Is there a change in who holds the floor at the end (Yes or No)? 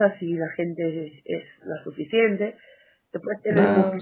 No